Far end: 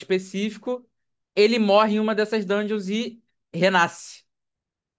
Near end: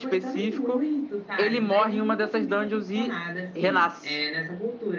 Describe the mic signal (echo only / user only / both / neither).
both